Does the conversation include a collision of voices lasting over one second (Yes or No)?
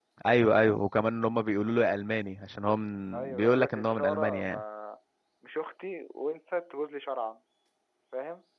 Yes